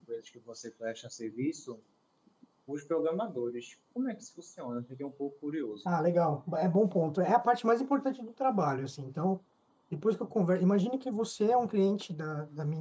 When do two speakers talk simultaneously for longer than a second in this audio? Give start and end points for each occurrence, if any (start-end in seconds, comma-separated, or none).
none